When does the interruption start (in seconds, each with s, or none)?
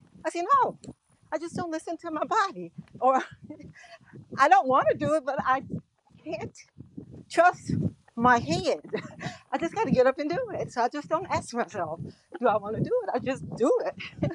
none